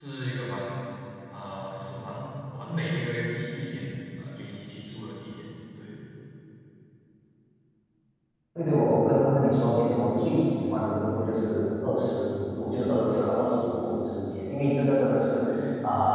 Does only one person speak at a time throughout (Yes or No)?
Yes